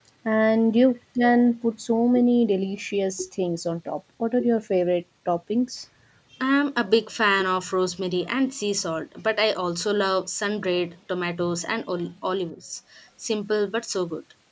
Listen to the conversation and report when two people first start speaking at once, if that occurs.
none

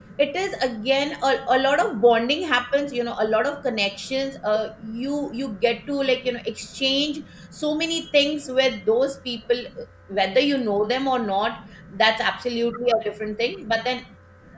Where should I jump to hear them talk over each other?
none

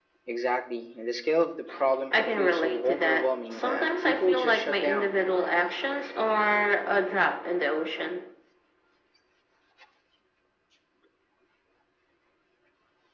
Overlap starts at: 2.1 s

